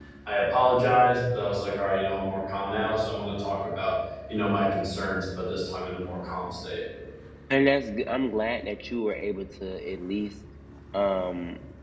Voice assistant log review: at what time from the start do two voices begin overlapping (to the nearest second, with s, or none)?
none